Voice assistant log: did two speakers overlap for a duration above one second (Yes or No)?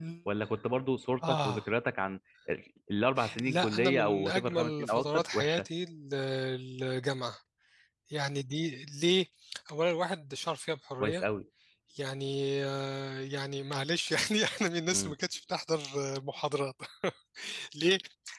Yes